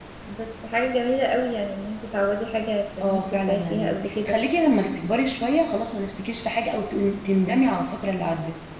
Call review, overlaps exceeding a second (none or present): present